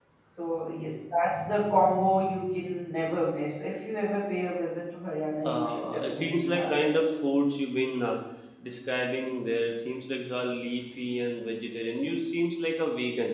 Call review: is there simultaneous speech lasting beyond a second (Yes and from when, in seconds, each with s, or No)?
Yes, from 5.4 s